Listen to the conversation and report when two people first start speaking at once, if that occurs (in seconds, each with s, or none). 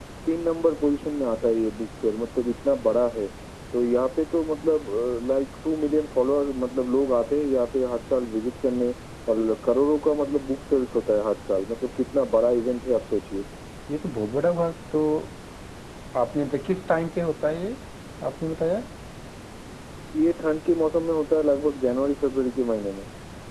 none